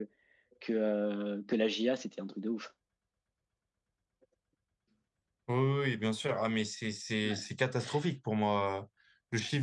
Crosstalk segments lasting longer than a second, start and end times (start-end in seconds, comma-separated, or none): none